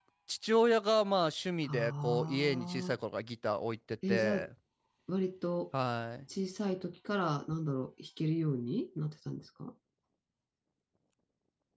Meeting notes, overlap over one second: present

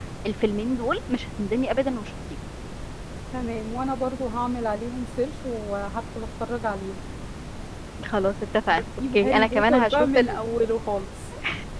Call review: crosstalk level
present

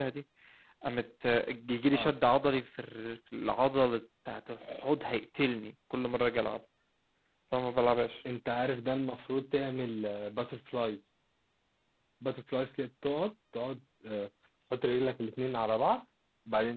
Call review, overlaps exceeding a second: none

